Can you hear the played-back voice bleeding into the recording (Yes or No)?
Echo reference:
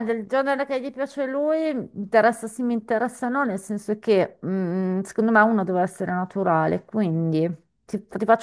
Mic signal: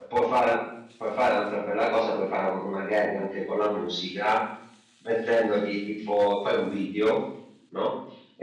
No